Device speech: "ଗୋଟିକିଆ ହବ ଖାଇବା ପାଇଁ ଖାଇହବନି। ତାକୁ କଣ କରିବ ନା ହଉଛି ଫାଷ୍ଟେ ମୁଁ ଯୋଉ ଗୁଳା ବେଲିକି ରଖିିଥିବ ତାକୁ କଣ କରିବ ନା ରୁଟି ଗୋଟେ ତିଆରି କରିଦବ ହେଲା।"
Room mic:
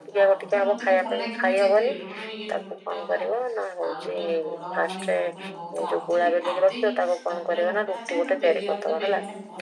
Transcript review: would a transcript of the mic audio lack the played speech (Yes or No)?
No